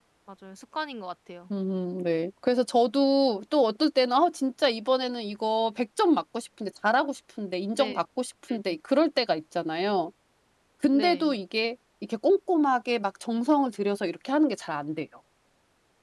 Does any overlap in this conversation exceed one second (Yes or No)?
No